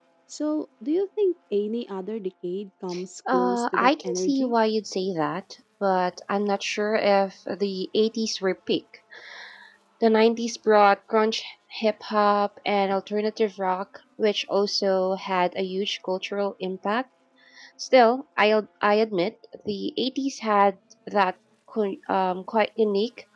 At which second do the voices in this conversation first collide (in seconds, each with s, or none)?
3.3 s